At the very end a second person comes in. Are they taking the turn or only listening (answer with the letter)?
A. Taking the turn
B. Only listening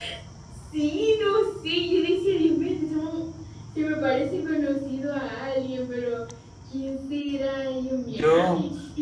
B